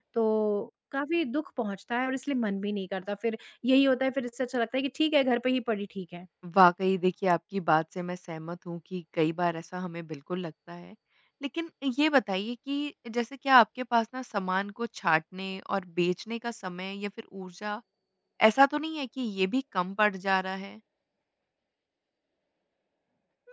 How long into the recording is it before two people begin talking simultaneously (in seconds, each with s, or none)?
none